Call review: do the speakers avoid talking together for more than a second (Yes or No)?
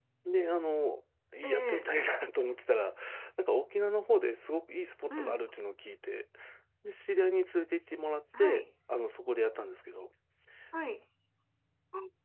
Yes